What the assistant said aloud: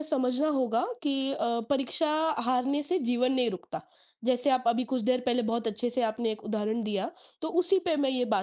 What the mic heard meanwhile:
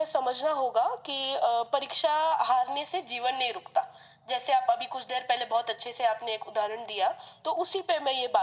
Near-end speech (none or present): none